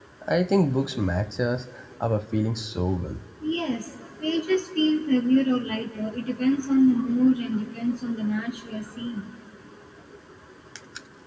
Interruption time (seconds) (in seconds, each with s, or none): none